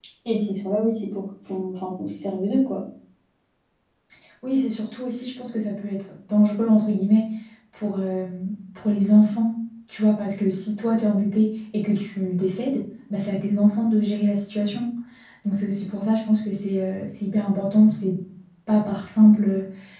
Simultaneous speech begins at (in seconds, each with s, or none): none